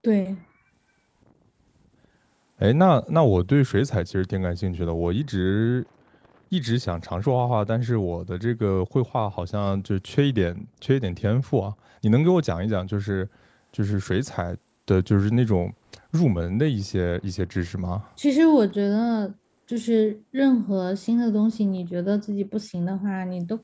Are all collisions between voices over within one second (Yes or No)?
Yes